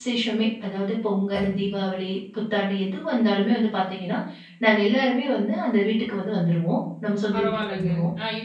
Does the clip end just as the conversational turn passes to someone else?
Yes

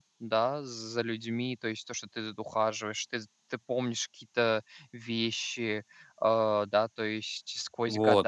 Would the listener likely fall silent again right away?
No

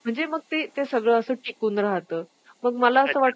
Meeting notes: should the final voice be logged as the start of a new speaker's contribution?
No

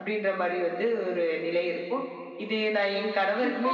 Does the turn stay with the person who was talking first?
No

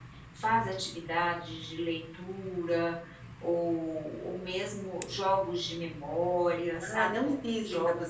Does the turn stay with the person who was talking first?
No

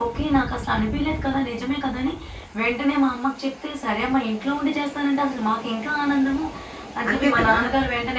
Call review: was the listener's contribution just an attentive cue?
Yes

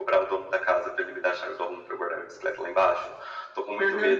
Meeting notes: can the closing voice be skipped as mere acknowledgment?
Yes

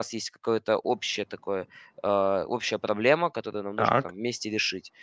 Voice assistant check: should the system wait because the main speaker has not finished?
Yes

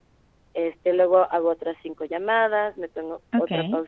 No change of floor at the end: No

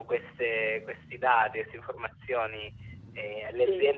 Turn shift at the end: No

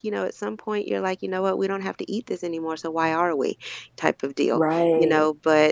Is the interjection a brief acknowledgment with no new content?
Yes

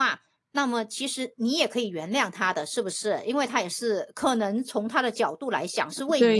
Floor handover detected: Yes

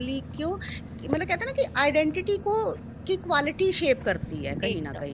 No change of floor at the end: No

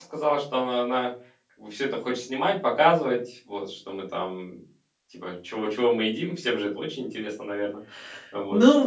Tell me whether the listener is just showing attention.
No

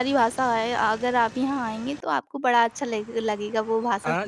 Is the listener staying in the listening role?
No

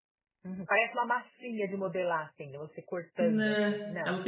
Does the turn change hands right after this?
Yes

